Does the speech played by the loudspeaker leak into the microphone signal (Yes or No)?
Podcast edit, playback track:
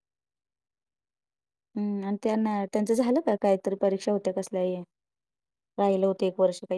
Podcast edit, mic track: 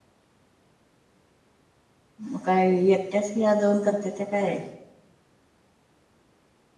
No